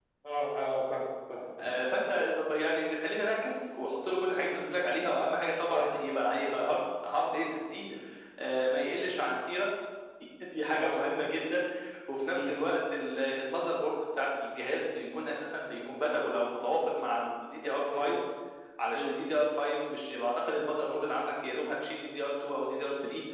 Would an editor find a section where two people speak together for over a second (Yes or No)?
No